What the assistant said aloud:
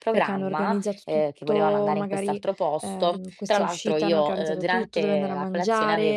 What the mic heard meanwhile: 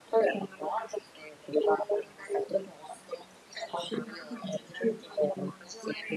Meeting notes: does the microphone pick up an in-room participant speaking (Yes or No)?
Yes